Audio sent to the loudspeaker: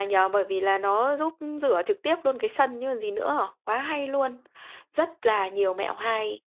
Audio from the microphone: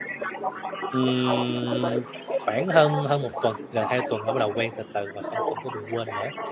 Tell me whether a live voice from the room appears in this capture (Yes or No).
Yes